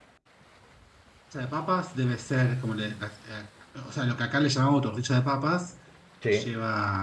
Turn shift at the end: No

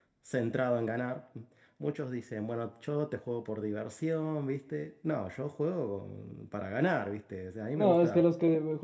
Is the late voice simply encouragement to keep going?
No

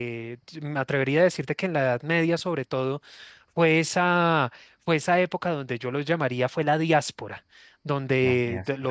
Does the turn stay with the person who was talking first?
Yes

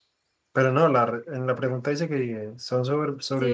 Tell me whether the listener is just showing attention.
No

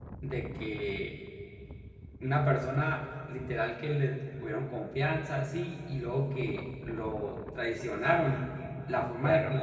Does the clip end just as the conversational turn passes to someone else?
No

